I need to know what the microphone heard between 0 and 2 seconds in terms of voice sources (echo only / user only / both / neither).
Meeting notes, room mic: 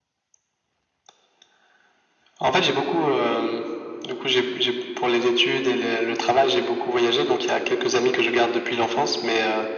neither